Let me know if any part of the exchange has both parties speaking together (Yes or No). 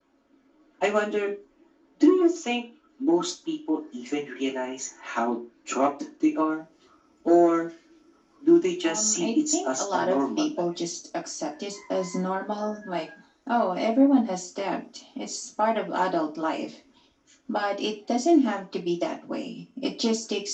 Yes